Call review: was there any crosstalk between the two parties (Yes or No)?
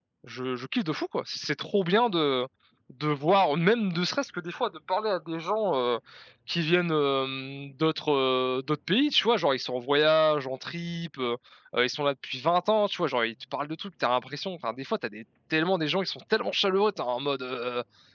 No